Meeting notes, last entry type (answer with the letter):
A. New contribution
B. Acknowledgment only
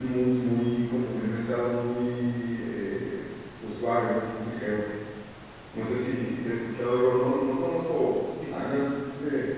B